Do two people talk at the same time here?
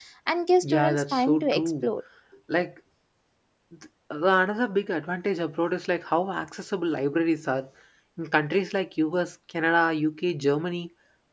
Yes, from 0.6 s

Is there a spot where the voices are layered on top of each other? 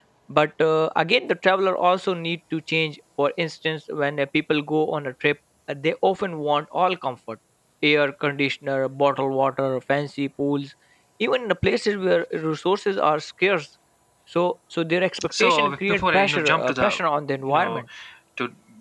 Yes, from 15.4 s

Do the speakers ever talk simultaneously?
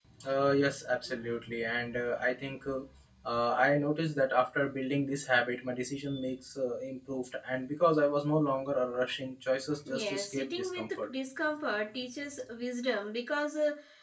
Yes, from 9.9 s

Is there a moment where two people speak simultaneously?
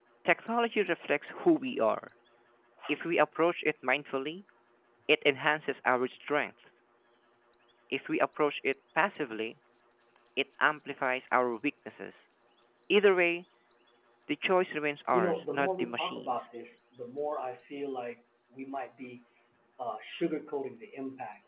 Yes, from 15.1 s

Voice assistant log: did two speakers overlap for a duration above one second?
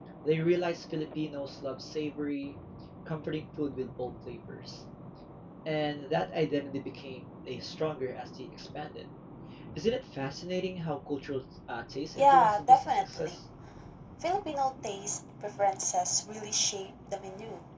Yes, from 12.2 s

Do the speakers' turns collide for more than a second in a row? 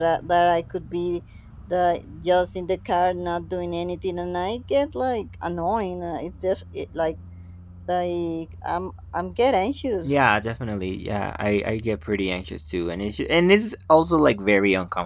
No

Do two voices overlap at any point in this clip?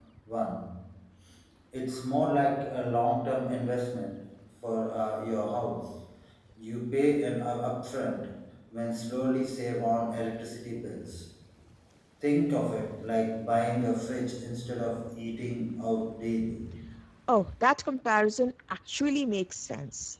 No

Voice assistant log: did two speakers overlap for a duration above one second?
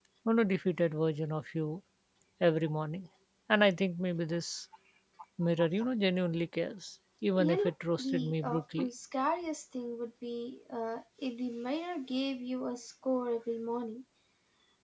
Yes, from 7.3 s

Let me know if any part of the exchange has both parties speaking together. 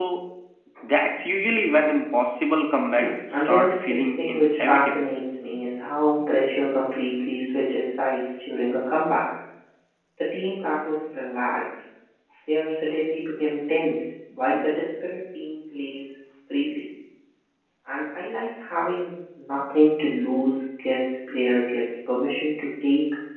Yes, from 3.0 s

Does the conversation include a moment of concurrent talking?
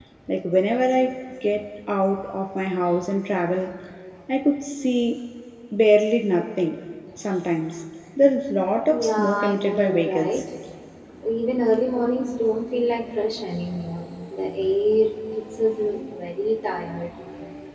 Yes, from 8.9 s

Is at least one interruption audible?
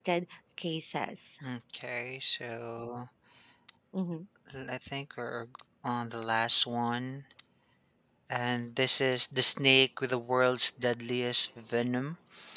No

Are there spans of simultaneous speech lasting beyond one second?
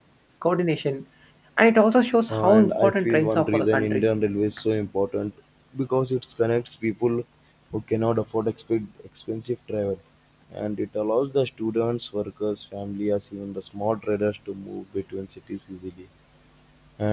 Yes, from 2.5 s

